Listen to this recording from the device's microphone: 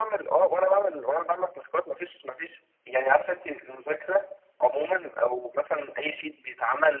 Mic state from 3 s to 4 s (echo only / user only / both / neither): echo only